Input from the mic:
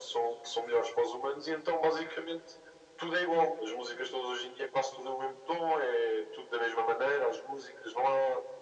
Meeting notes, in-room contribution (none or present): none